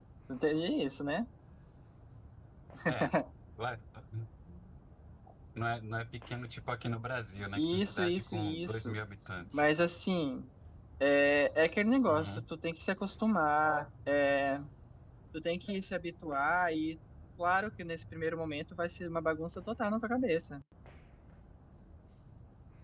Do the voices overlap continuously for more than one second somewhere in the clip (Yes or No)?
Yes